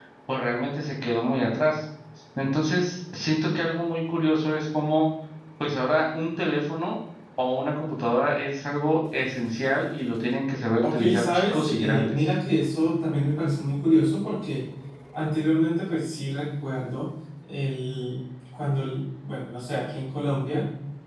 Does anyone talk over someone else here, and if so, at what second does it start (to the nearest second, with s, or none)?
11 s